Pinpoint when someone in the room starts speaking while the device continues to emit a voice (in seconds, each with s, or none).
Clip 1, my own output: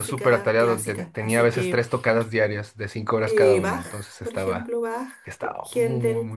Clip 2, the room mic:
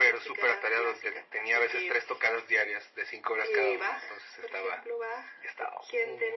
none